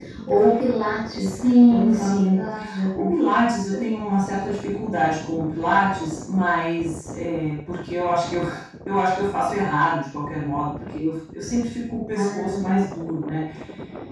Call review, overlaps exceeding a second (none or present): present